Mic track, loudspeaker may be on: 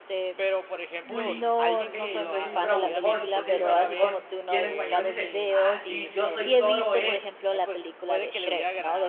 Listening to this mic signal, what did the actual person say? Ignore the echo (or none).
bully", okey, que yo soy bravucón, yo soy el bravucón, y en español dice: "Ah, sí, yo soy Toro E",